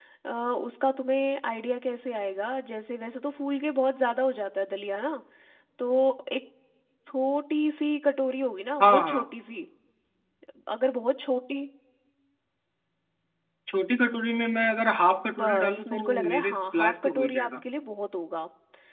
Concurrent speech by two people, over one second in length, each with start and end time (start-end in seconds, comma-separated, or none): 15.4-17.5